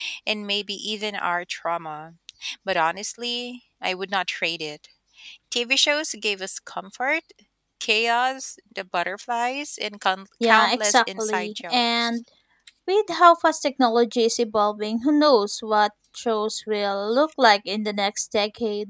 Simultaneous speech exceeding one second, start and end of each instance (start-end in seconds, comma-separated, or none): 10.4-12.1